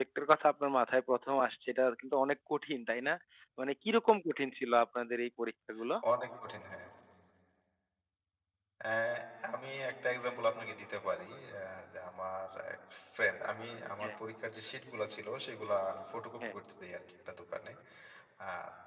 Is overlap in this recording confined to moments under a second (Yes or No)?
Yes